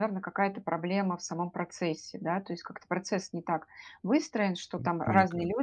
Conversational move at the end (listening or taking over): listening